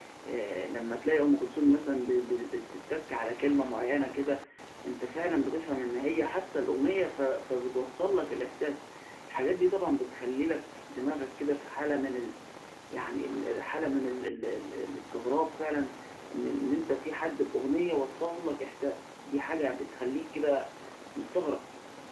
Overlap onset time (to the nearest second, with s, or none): none